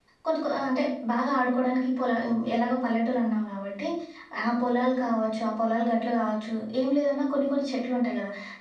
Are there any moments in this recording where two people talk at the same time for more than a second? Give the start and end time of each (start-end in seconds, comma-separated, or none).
none